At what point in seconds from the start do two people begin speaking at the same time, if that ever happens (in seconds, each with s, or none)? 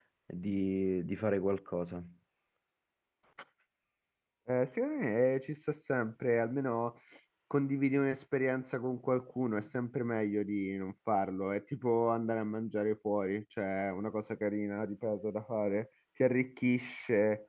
none